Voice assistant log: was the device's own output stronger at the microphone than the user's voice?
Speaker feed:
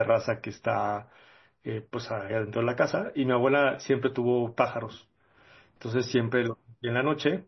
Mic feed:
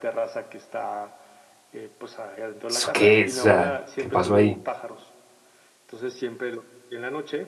No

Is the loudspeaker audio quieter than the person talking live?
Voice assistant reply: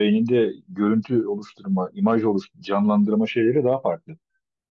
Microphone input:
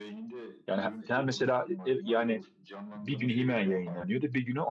Yes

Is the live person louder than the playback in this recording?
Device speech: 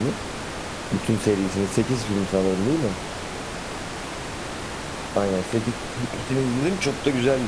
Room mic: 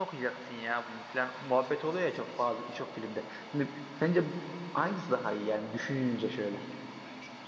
Yes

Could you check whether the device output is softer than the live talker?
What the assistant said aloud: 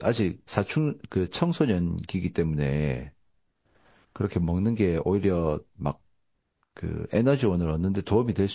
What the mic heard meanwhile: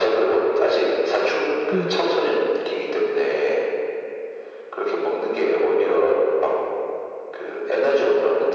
No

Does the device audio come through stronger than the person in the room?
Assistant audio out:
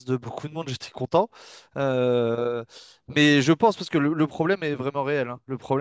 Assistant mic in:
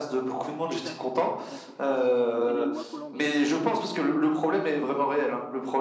Yes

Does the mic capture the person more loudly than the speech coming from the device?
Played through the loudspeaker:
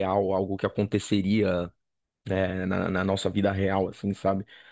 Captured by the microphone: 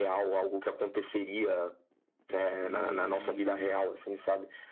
No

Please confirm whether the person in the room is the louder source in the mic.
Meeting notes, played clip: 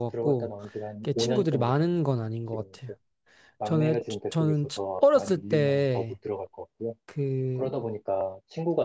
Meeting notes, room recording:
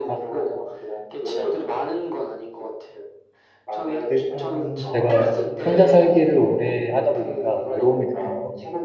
Yes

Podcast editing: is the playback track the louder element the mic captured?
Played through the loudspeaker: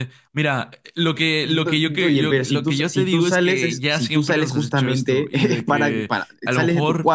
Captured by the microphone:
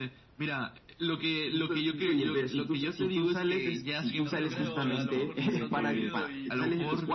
Yes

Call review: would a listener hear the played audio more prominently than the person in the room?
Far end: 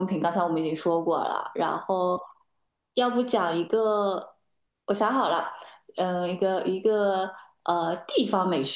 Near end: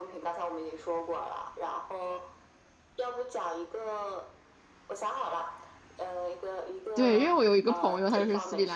No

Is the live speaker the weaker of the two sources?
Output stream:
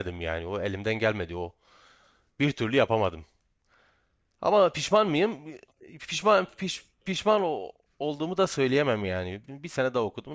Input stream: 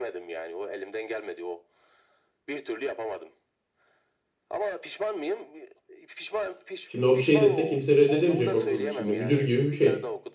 No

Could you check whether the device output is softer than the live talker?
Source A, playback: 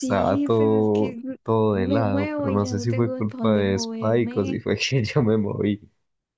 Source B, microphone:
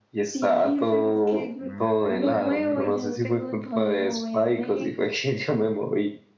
No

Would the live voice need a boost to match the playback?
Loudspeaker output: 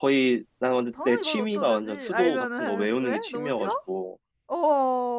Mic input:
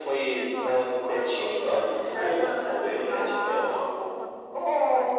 Yes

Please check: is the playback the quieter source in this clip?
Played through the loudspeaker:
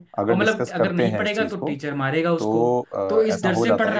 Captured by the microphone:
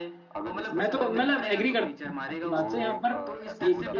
Yes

